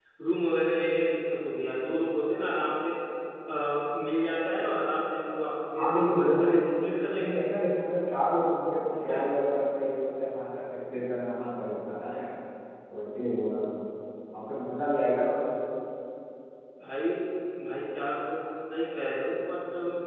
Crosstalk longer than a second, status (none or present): present